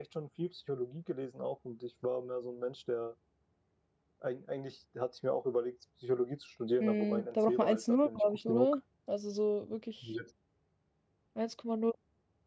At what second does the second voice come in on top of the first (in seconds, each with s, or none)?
6.8 s